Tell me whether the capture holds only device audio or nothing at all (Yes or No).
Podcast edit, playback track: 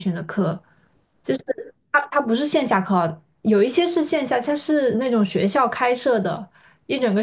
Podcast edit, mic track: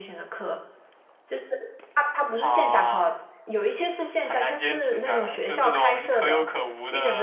No